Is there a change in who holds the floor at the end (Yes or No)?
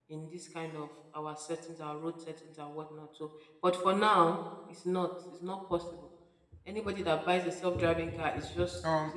Yes